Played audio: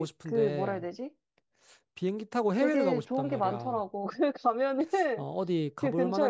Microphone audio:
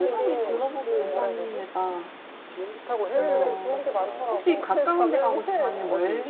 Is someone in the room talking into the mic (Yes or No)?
Yes